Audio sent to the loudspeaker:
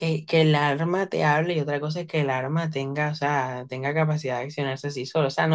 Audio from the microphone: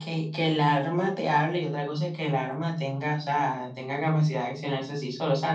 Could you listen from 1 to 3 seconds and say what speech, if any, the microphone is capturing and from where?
echo only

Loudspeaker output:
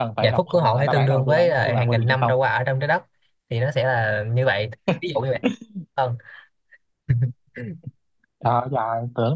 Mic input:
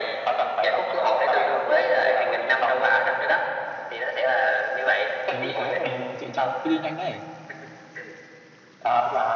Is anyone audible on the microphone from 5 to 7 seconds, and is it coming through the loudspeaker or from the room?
both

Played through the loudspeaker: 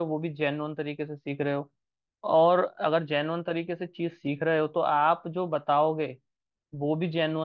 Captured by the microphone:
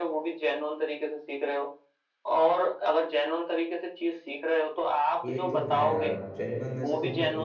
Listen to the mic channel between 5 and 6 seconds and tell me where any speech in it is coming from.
both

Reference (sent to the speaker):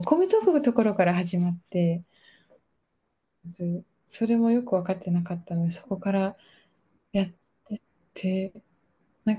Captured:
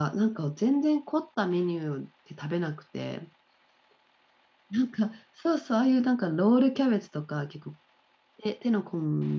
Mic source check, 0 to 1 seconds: user only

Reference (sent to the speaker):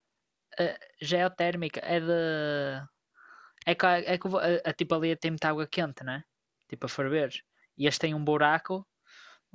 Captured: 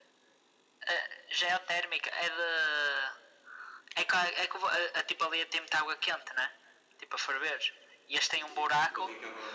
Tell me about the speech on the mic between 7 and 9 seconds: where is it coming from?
both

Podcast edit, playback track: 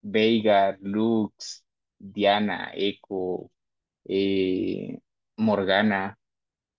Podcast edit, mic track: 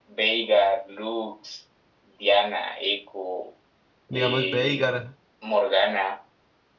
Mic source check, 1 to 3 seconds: echo only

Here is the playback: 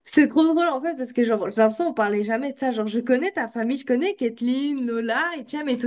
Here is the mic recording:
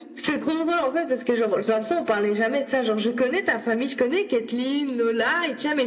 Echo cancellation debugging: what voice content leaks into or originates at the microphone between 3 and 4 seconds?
echo only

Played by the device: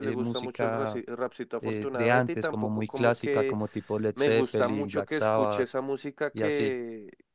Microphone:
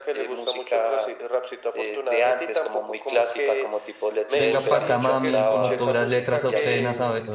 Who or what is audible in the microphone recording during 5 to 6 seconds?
both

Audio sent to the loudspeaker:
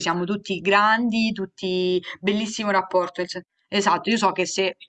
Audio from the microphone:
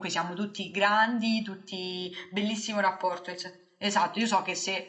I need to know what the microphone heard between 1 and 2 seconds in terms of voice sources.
echo only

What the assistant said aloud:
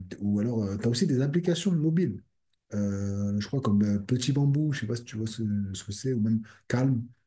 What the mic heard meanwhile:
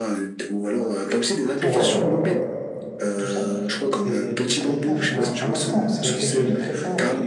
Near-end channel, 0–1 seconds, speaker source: echo only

